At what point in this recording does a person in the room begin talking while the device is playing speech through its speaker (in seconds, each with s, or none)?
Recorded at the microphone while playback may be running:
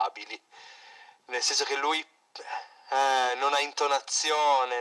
none